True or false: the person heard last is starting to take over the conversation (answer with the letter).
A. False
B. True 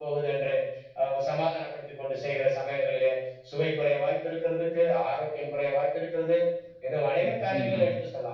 A